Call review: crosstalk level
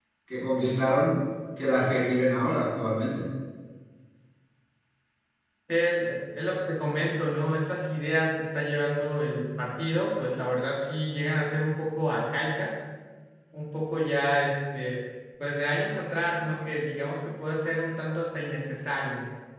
none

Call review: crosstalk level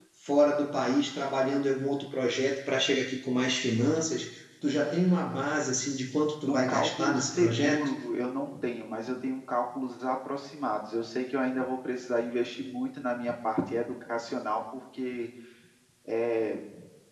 present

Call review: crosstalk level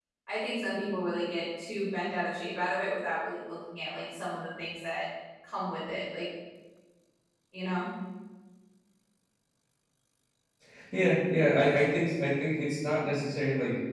none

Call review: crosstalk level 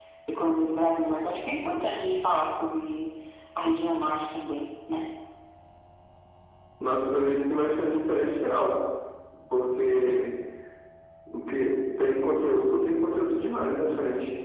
none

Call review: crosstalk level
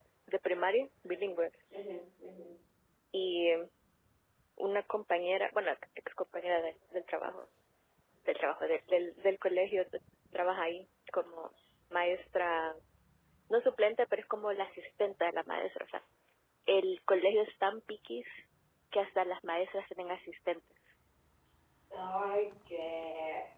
none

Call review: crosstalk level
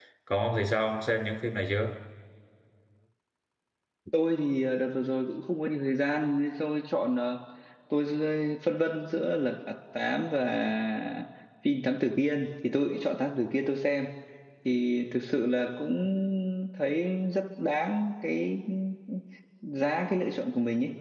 none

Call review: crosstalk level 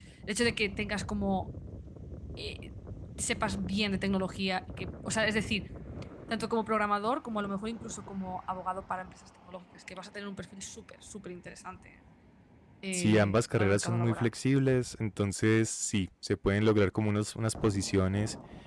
present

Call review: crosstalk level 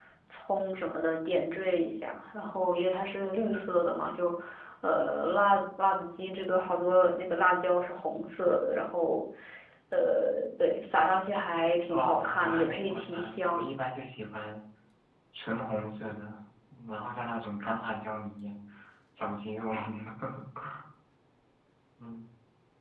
present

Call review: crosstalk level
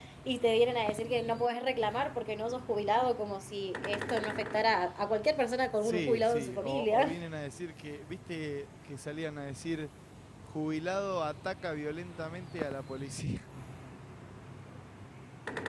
present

